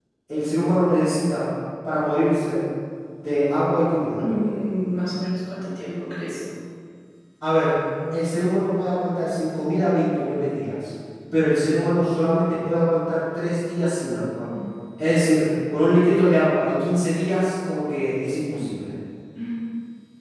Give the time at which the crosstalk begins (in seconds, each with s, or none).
none